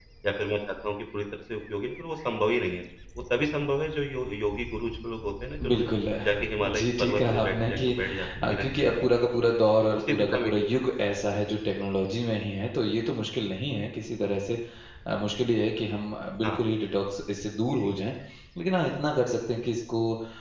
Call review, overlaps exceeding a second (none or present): present